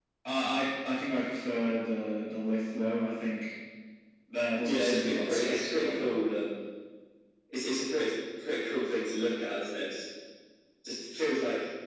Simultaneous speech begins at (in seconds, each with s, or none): 4.6 s